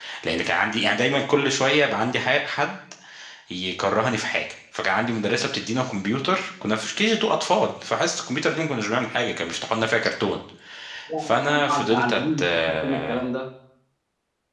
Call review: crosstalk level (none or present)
present